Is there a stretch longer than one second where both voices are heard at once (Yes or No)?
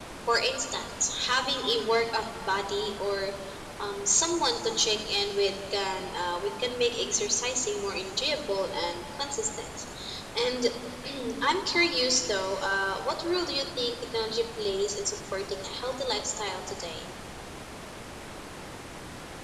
No